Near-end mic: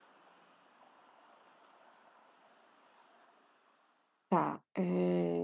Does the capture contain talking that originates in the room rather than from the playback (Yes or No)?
Yes